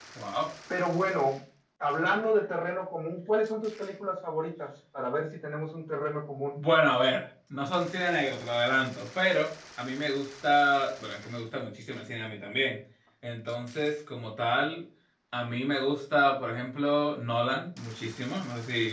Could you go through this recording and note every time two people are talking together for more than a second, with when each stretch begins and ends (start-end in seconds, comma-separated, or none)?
none